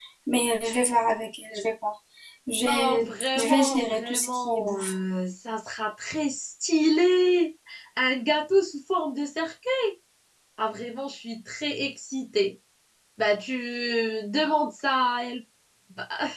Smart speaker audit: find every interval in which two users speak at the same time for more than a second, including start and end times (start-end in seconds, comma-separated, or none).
2.6-4.9